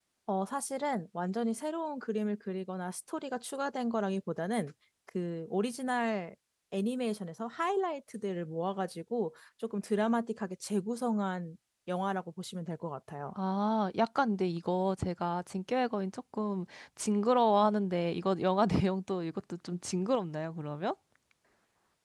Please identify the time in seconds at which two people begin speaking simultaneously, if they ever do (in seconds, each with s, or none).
none